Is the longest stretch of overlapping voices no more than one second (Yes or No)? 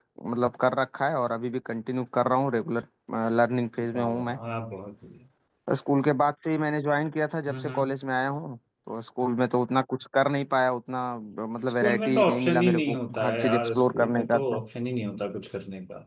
No